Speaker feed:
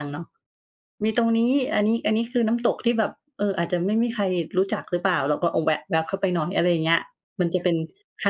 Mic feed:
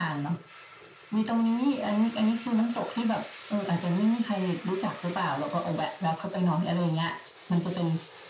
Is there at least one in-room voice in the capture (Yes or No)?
No